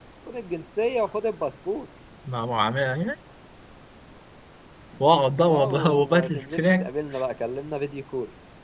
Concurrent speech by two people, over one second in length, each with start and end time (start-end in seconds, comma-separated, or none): 5.5-6.9